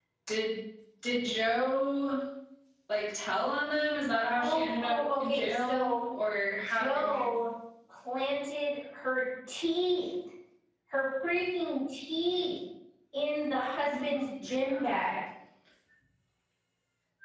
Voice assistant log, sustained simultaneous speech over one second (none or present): present